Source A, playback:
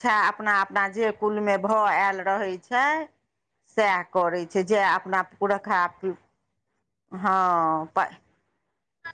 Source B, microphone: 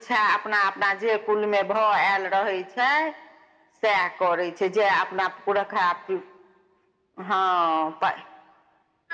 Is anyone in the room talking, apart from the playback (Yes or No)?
No